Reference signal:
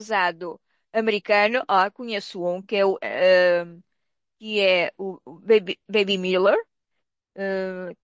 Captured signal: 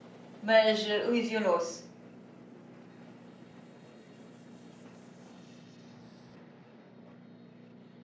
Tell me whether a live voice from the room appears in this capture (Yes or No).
Yes